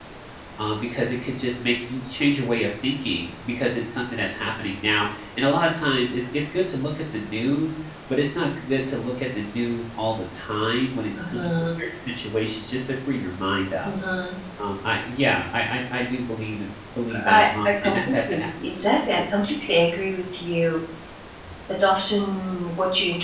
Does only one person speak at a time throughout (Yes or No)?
No